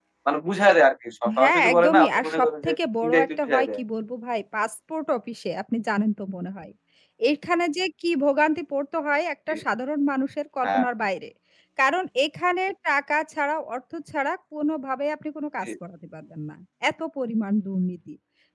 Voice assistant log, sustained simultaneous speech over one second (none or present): present